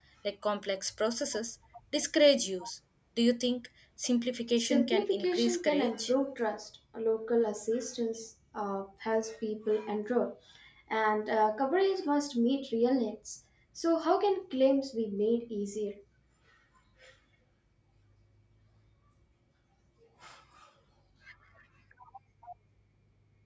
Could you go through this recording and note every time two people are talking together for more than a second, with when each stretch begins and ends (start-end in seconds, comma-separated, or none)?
4.6-6.1